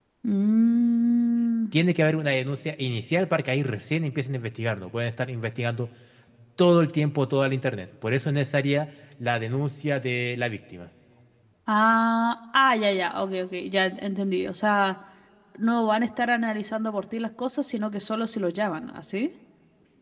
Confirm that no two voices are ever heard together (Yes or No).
Yes